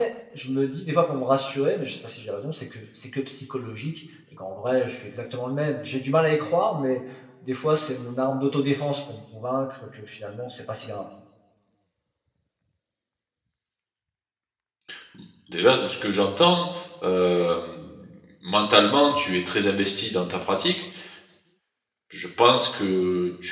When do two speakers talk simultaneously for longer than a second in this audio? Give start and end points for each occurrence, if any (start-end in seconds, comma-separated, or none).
none